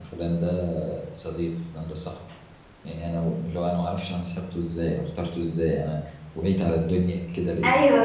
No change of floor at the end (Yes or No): No